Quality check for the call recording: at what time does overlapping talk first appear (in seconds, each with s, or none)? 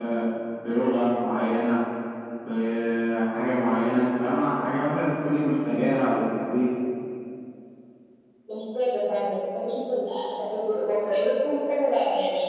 none